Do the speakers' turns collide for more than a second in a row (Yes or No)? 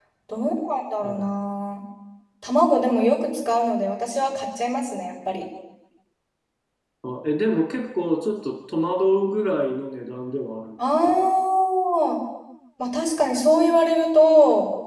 No